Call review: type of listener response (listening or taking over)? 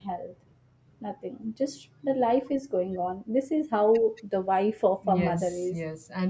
taking over